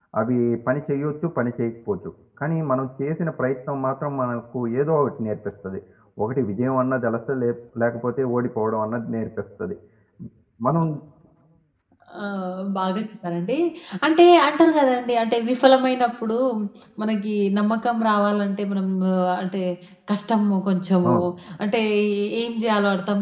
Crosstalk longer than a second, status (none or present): none